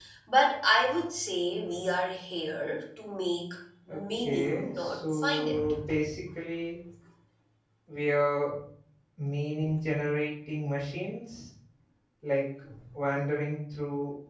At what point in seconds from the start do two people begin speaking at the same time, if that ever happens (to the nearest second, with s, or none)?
4 s